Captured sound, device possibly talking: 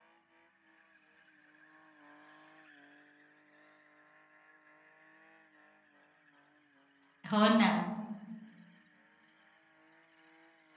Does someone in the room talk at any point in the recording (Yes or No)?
Yes